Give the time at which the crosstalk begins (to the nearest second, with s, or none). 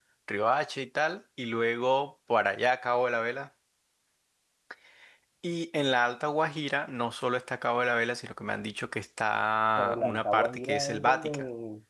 10 s